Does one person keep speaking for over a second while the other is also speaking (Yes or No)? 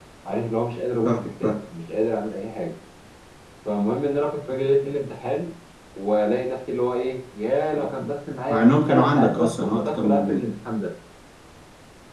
Yes